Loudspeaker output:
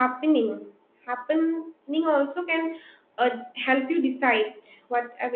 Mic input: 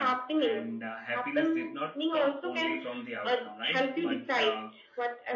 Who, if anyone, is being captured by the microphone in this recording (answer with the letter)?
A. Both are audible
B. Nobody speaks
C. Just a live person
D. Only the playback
A